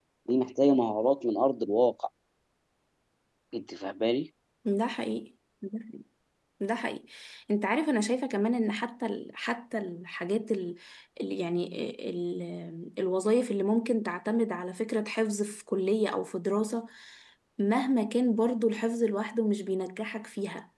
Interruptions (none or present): none